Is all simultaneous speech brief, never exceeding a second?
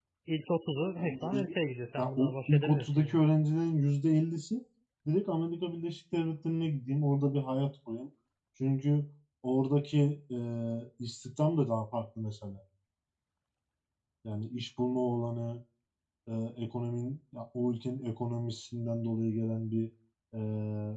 No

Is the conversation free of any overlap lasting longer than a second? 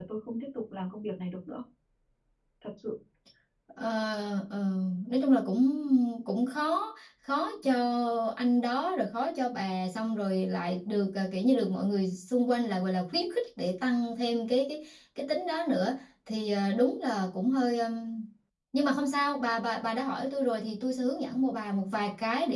Yes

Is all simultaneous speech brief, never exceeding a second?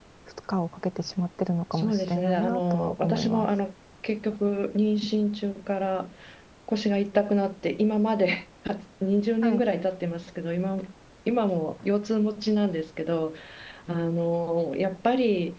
No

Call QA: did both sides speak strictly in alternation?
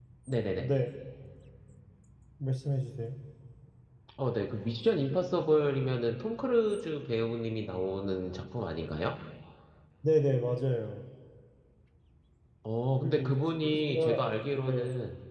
No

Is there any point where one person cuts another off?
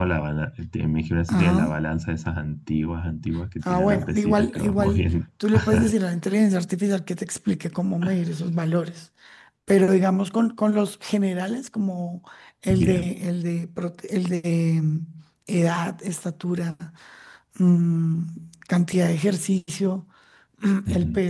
Yes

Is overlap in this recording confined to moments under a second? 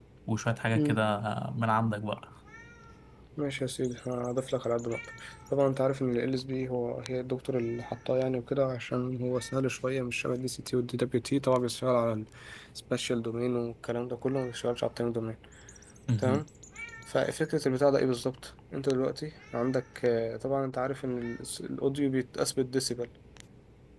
Yes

